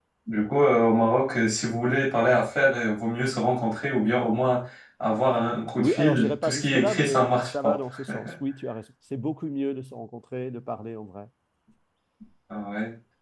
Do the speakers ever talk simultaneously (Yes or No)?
Yes